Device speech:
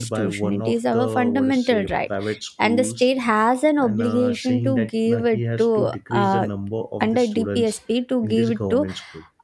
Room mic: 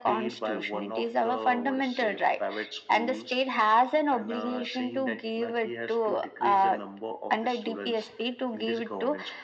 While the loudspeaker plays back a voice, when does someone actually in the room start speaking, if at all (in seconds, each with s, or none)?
none